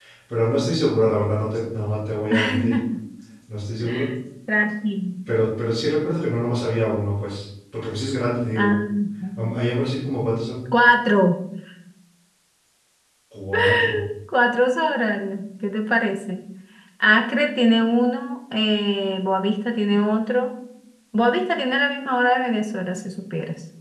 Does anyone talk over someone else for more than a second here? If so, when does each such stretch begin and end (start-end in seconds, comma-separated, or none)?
none